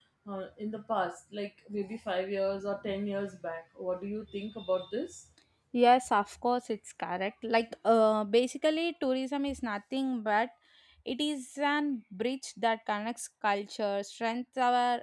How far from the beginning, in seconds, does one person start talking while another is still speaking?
none

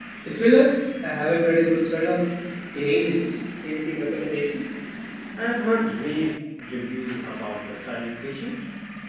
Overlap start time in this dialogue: none

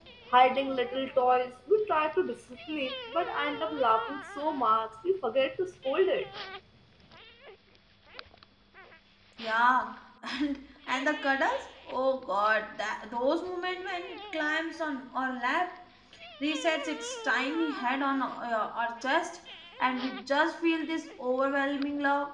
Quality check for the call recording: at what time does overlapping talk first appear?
none

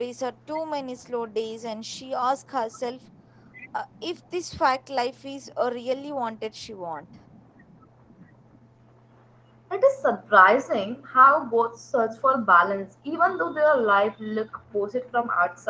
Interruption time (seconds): none

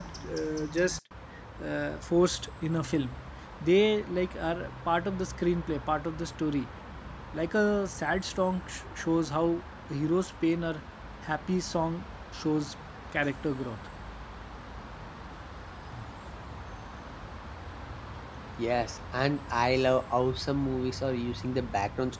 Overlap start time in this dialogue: none

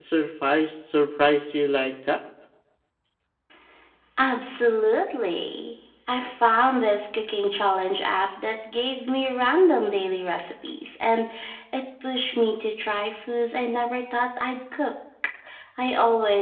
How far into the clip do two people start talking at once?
none

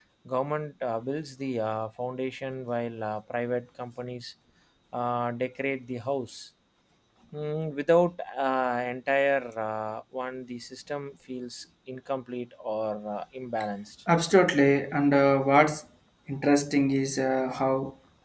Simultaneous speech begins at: none

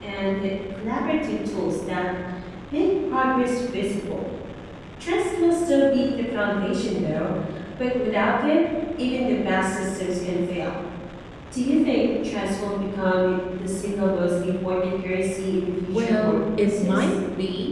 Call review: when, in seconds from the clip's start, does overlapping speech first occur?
15.8 s

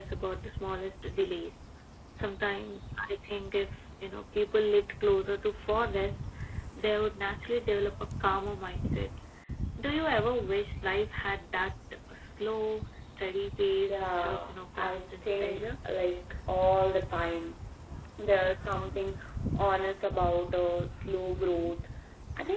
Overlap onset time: 13.9 s

